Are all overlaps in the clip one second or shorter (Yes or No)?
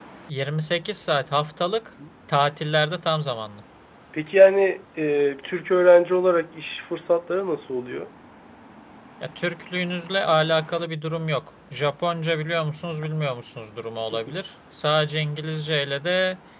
Yes